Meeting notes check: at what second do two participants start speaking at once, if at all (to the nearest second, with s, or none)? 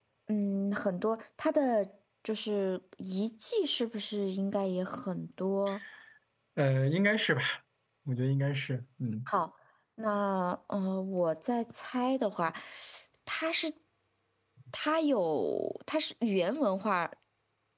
none